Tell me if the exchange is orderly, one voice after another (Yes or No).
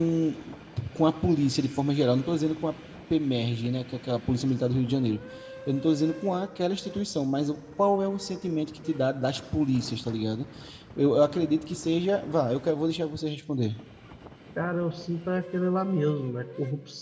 Yes